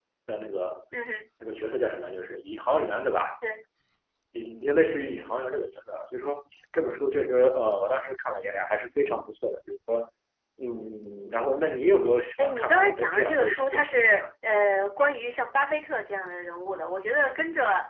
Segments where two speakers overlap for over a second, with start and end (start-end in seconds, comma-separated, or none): 12.4-14.2